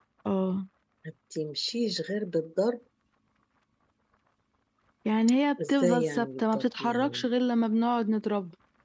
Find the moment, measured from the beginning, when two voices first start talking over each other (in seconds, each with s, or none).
5.7 s